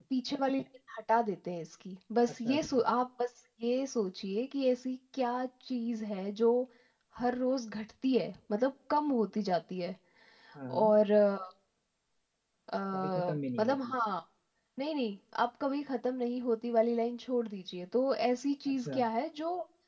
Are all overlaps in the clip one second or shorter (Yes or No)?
Yes